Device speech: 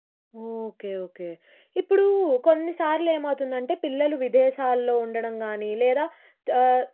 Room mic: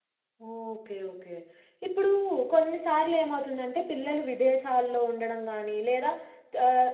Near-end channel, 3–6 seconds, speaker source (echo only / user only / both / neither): echo only